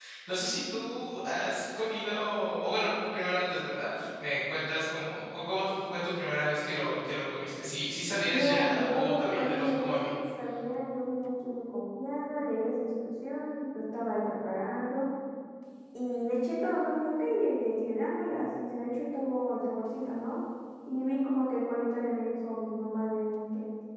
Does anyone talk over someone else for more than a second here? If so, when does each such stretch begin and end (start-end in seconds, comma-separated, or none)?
8.3-10.2